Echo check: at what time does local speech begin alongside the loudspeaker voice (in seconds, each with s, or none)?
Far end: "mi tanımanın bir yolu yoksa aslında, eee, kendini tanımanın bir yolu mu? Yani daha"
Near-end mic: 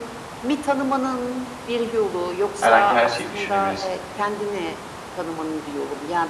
2.6 s